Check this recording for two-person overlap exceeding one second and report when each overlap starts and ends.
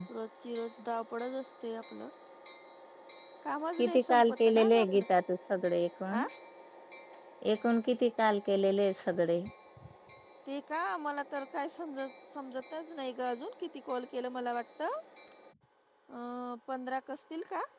3.8-5.0

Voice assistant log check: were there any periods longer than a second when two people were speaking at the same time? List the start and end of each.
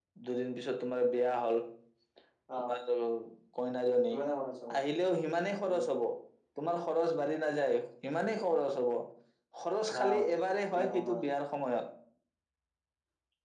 none

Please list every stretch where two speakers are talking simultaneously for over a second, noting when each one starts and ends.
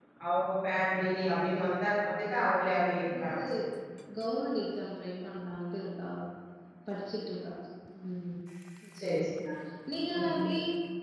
none

